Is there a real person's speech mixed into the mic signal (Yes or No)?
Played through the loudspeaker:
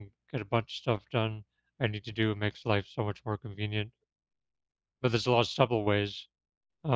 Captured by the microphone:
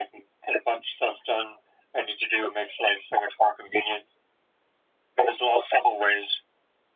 No